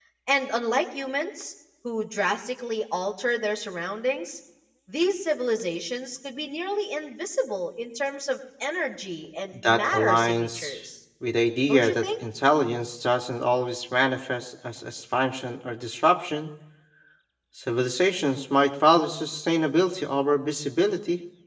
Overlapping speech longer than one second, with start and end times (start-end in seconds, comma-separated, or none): 9.5-10.7